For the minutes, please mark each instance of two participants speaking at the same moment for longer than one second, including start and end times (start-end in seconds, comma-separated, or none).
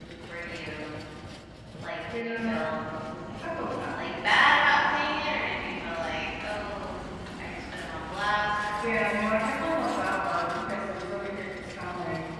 none